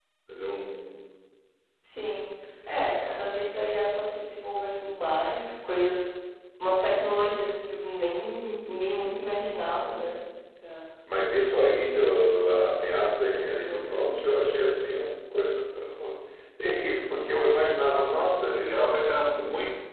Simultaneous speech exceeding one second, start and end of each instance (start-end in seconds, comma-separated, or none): none